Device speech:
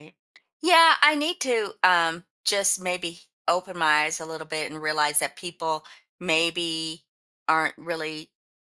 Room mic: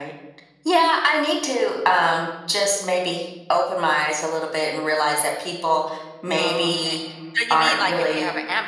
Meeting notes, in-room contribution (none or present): present